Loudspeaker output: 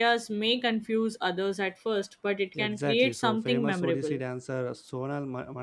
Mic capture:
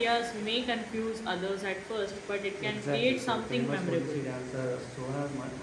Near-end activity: none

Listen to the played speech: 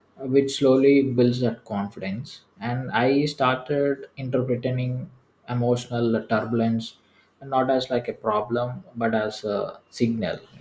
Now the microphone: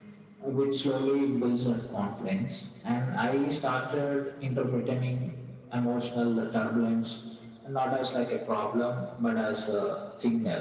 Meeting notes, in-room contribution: none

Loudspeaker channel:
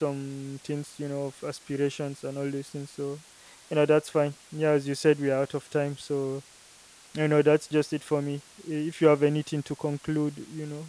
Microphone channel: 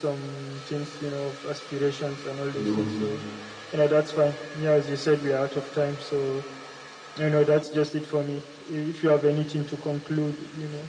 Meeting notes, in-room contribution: present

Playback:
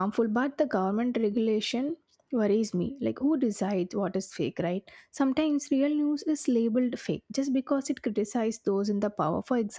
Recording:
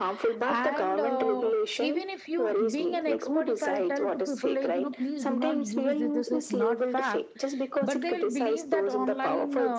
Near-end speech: present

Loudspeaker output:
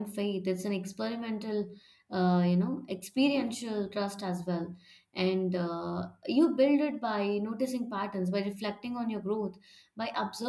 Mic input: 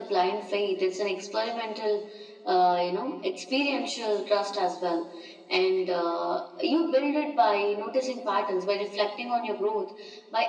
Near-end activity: none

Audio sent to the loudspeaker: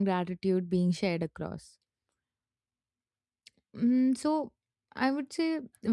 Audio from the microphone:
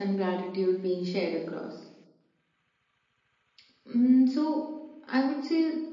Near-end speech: none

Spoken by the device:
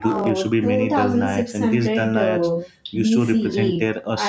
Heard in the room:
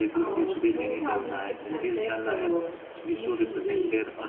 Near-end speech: none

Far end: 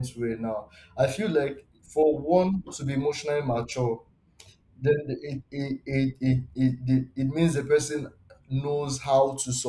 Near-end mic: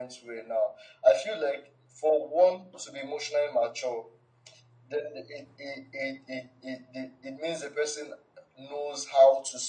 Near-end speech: none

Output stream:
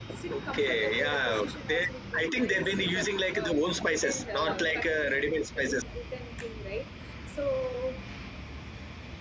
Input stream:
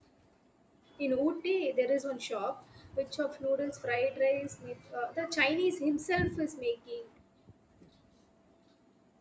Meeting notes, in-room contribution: present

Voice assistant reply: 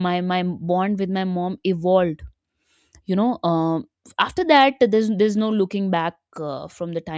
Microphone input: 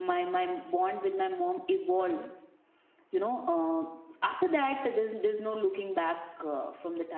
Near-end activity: present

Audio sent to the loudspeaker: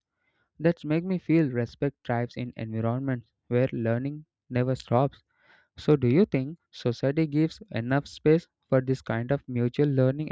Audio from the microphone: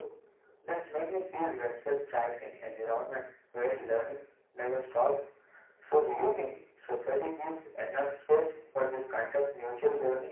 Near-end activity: none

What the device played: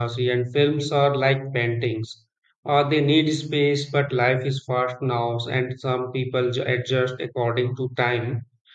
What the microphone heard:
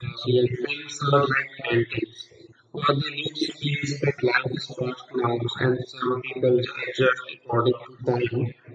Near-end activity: none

